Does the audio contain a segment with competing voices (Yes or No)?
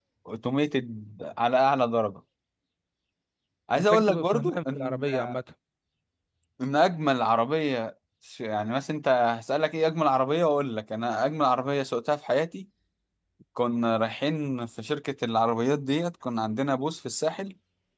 Yes